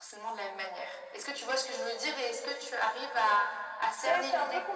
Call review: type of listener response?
taking over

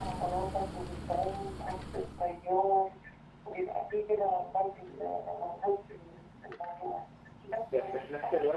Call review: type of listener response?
taking over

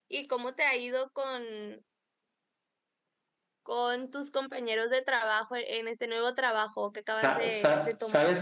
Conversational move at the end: taking over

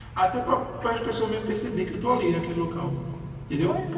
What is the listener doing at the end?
listening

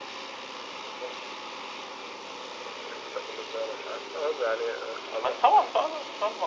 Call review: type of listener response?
taking over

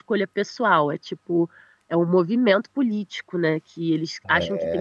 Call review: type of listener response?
listening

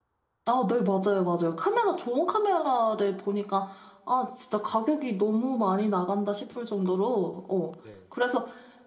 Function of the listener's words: listening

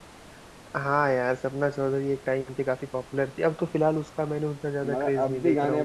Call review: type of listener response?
taking over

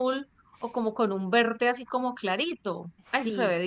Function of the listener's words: taking over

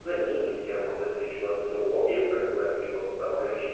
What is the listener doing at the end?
taking over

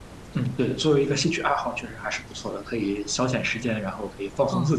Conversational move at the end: taking over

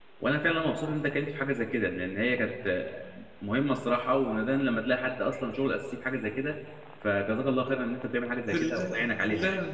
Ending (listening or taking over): taking over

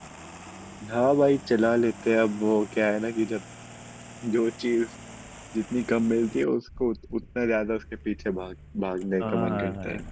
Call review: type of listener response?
taking over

